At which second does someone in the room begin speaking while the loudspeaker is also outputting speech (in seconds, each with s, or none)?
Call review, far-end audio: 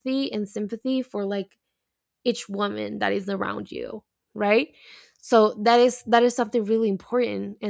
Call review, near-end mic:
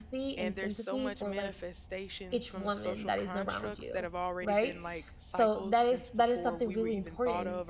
0.4 s